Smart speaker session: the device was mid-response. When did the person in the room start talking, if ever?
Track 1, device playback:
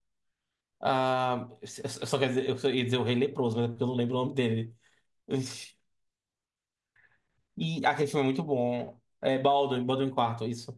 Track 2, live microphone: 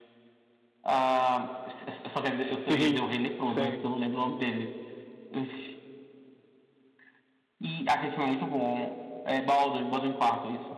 2.4 s

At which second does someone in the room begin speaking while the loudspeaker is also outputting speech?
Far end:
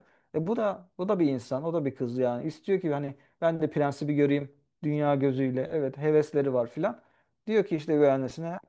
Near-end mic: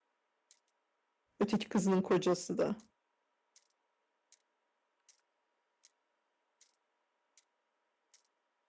1.4 s

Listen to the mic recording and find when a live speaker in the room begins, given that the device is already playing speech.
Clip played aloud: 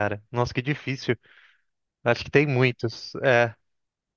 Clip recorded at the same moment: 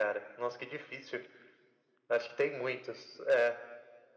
none

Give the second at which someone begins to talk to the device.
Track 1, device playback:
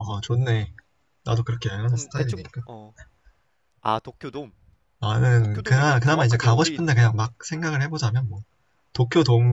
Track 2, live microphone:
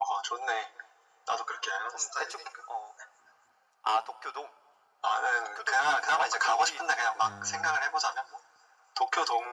7.2 s

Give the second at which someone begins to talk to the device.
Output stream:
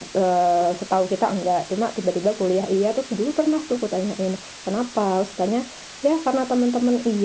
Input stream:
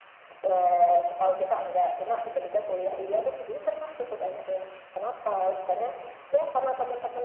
none

